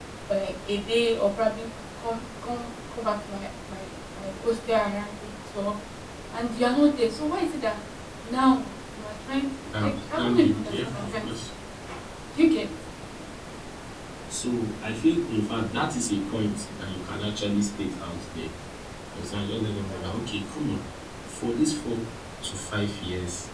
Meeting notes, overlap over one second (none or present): present